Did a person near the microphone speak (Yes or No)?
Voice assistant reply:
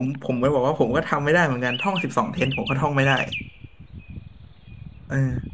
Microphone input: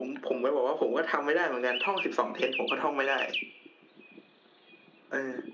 No